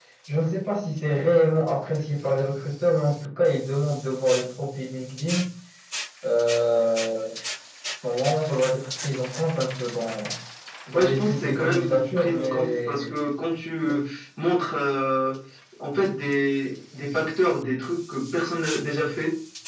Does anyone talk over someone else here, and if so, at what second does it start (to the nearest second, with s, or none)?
11 s